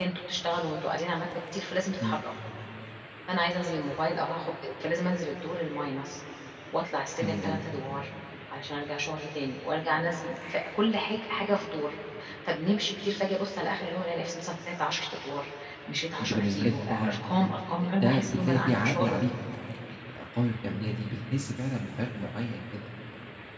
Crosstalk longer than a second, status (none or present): present